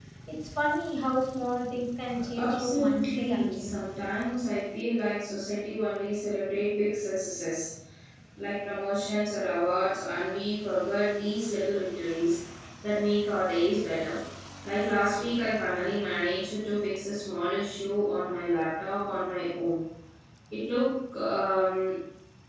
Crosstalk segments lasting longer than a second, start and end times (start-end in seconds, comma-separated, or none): 2.4-3.8